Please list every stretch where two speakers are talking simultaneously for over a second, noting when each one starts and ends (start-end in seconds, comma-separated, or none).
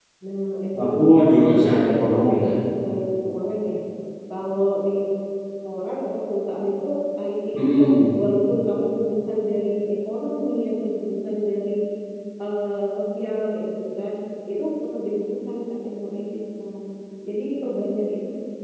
0.8-2.5